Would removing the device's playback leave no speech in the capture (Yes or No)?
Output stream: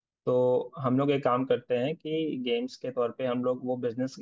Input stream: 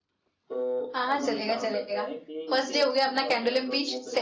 No